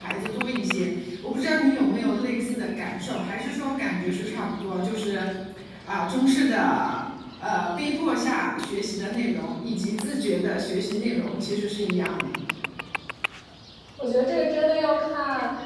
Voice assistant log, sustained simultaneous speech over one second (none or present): none